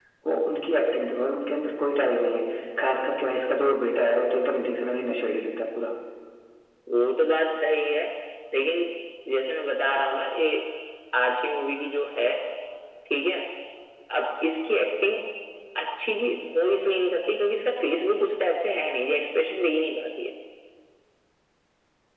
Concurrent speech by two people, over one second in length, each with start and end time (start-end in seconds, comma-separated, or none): none